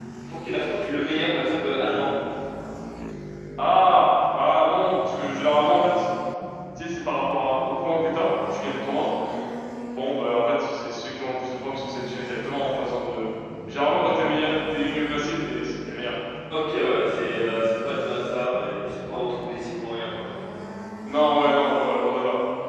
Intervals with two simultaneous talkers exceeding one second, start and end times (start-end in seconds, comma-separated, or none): none